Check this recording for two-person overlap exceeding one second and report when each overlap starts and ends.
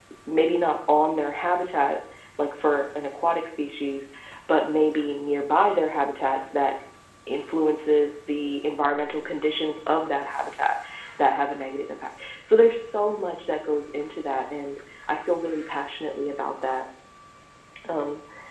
none

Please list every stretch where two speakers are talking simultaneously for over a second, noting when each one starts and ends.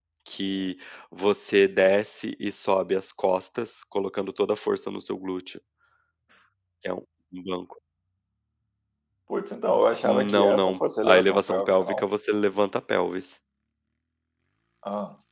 10.0-12.0

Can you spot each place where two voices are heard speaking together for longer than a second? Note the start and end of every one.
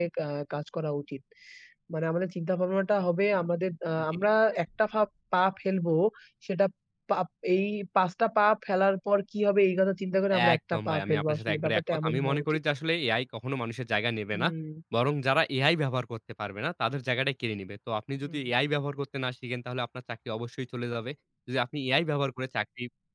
10.5-12.6

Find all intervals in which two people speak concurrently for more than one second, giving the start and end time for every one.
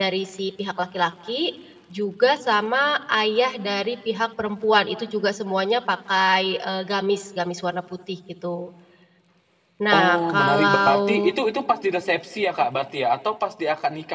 9.9-11.3

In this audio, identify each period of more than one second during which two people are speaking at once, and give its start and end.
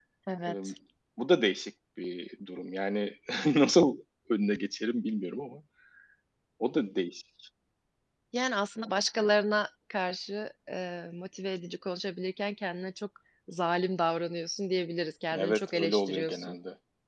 15.3-16.6

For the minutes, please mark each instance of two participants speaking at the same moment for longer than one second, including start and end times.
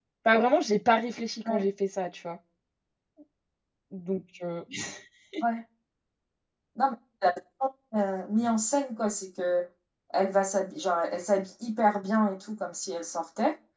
none

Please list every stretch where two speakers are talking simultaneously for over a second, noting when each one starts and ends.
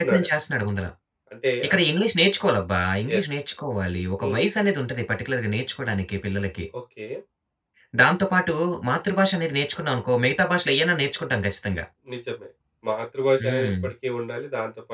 none

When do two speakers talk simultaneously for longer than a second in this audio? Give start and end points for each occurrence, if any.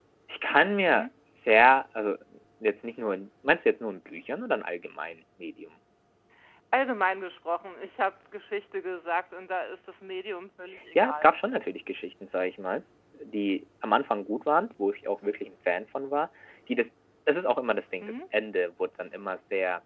none

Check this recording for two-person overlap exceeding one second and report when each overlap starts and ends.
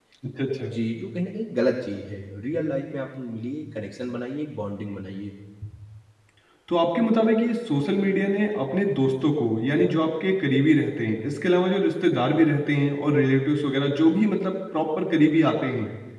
none

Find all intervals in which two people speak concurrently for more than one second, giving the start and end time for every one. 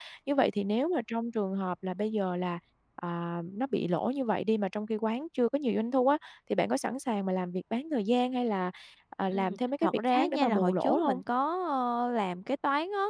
9.3-11.2

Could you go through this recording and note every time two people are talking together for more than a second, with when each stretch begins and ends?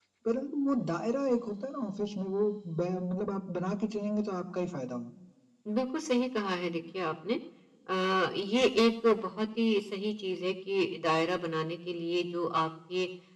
none

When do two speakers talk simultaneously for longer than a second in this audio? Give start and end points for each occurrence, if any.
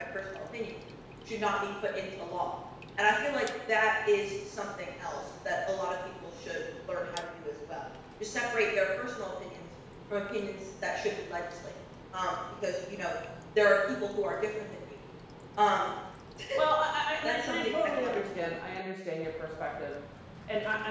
17.2-18.5

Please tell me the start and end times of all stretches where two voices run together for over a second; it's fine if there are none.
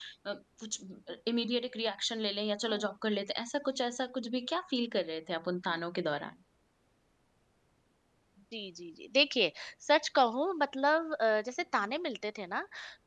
none

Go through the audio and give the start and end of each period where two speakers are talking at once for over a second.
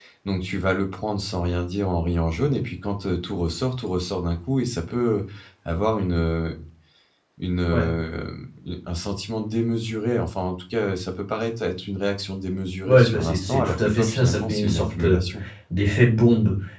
12.8-15.2

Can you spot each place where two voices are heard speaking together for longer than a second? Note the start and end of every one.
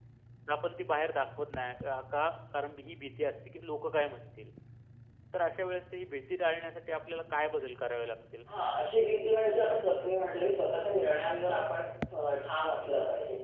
none

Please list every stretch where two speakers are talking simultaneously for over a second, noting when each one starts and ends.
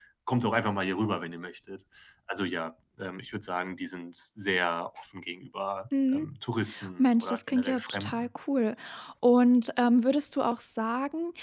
7.0-8.3

